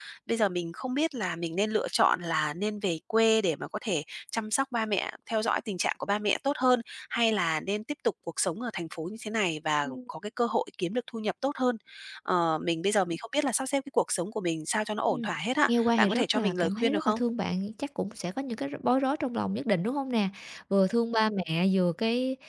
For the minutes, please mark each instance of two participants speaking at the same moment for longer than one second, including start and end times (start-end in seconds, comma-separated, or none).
15.7-17.2